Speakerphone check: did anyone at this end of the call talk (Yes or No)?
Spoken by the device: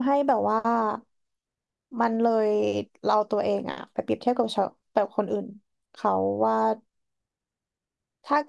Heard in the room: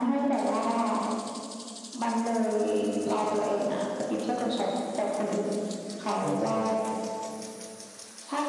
Yes